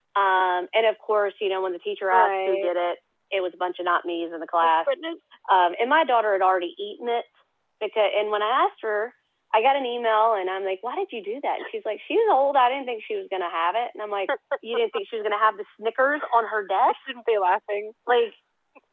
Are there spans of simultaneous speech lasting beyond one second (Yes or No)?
No